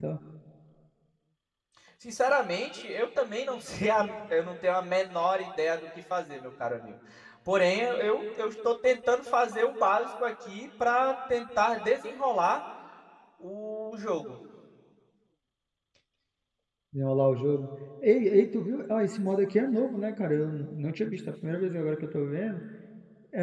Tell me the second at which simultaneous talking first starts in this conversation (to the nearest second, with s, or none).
none